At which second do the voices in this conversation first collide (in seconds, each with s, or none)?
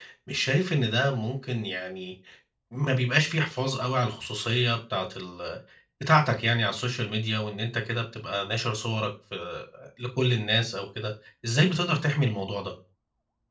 none